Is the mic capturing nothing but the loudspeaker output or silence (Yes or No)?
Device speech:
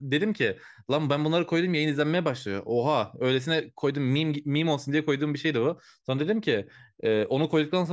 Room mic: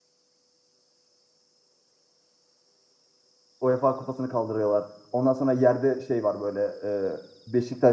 No